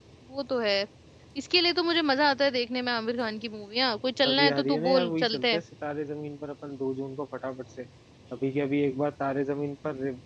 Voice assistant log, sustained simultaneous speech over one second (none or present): present